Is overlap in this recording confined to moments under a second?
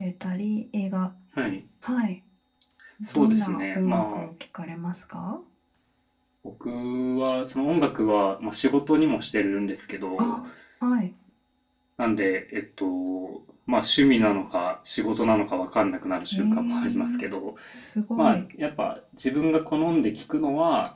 No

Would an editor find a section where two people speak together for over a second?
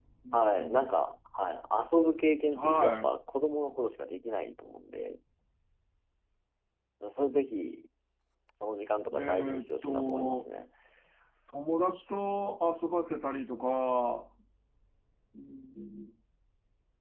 Yes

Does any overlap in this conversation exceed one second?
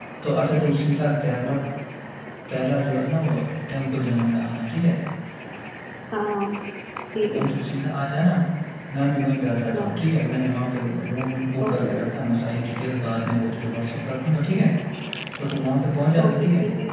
No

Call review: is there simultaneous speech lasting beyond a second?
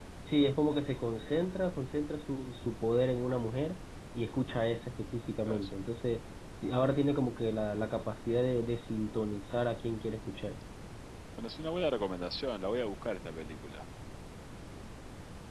No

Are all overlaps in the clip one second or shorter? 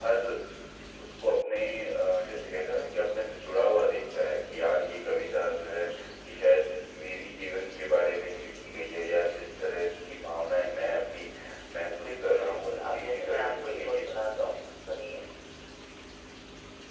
No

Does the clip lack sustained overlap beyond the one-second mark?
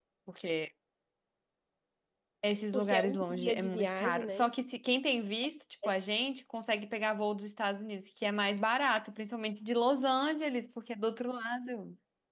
No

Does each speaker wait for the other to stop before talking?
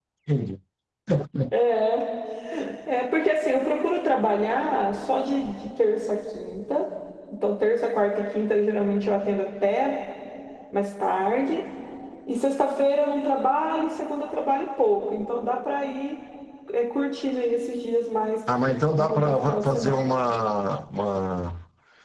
No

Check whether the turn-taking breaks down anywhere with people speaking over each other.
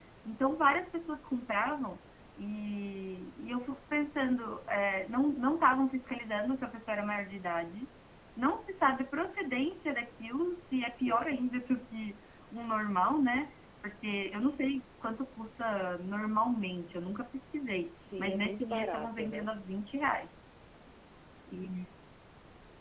Yes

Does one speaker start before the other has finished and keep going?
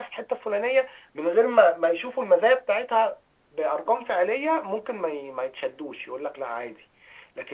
No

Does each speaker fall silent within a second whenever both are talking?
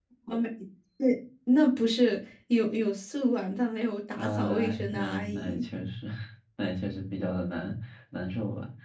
No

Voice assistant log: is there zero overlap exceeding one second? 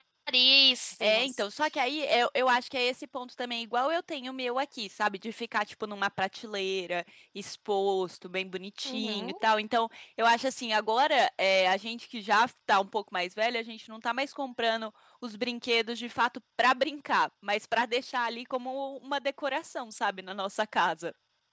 Yes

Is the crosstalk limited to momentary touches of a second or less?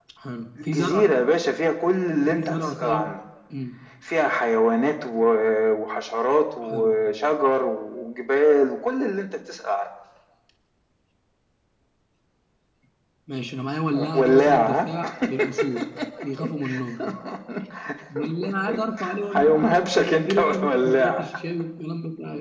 No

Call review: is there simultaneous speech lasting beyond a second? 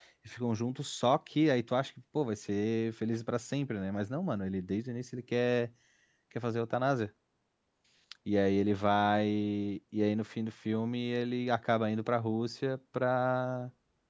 No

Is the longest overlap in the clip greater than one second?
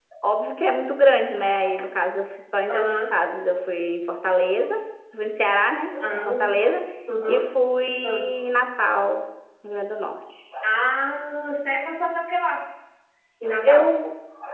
No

